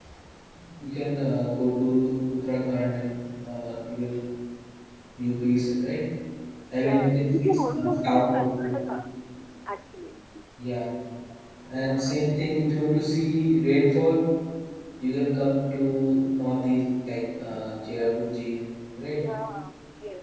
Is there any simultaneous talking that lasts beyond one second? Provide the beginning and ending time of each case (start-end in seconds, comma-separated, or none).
6.8-8.7